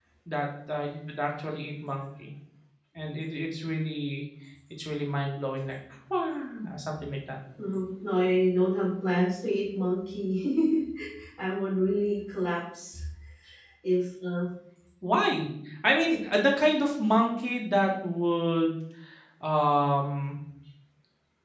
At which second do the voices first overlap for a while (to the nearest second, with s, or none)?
none